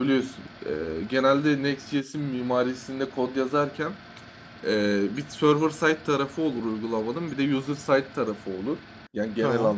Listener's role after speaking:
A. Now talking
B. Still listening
B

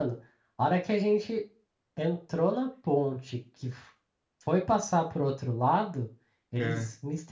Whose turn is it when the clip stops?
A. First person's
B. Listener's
A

